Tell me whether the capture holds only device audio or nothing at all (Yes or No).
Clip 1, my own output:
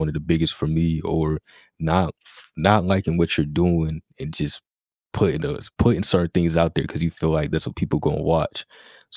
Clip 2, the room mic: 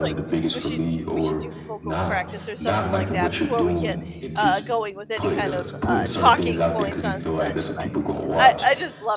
No